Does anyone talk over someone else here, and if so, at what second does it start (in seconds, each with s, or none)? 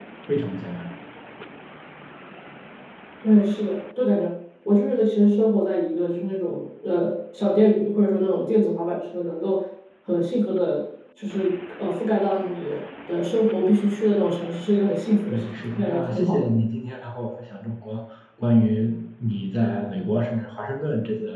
15.3 s